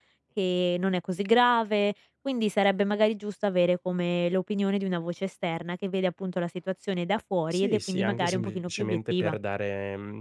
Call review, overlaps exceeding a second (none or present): present